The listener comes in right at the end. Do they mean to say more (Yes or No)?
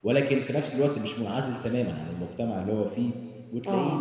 No